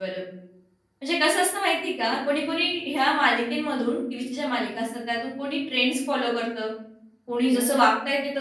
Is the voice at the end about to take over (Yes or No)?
No